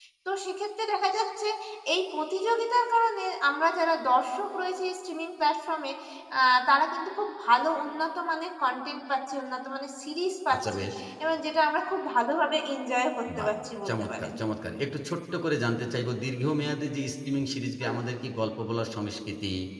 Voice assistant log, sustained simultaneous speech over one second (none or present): none